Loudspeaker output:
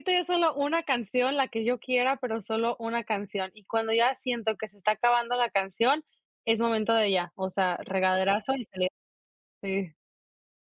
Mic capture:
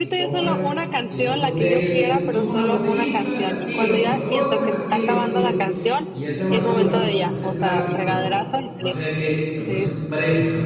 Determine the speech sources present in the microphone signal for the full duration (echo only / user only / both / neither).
both